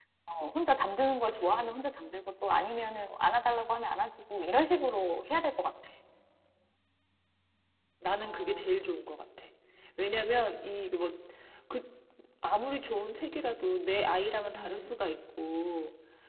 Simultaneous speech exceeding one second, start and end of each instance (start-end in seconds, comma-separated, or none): none